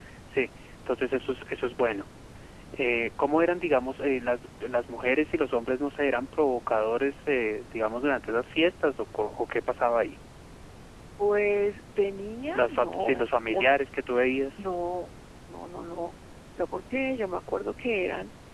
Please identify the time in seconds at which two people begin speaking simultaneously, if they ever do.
12.5 s

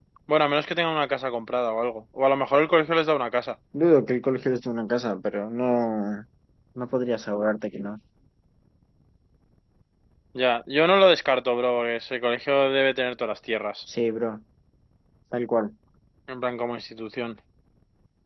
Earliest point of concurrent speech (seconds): none

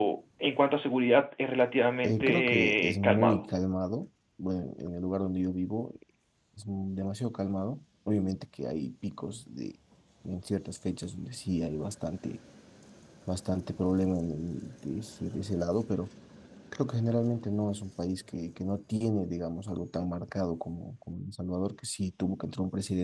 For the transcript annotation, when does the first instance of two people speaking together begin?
2.0 s

